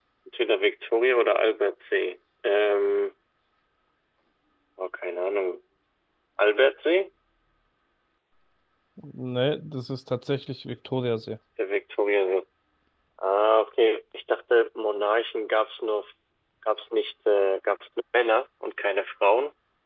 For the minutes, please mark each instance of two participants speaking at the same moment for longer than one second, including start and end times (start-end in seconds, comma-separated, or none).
none